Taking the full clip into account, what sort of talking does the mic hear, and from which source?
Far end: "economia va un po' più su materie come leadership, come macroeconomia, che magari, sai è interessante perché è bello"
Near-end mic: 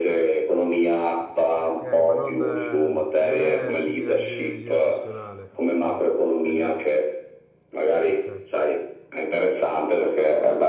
both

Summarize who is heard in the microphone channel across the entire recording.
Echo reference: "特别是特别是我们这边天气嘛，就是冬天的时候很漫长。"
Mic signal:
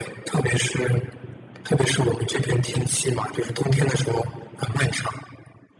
echo only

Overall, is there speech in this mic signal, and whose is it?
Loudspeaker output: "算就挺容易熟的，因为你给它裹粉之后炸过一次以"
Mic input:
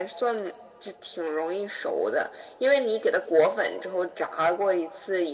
echo only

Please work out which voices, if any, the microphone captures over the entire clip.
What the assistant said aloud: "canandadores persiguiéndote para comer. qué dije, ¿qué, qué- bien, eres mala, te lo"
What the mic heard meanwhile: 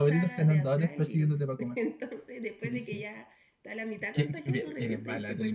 both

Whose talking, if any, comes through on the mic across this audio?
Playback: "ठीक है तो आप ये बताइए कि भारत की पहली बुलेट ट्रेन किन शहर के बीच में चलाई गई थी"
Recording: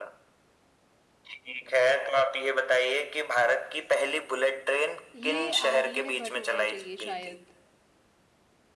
both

